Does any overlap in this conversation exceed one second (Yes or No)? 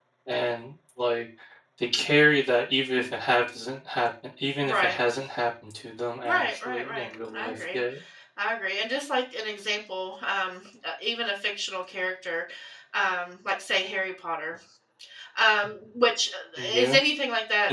Yes